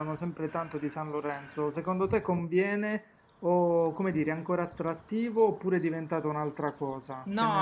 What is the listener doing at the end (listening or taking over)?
taking over